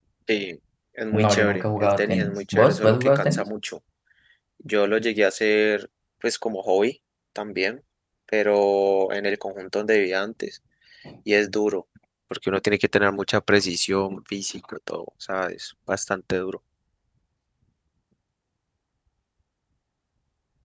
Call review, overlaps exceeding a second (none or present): present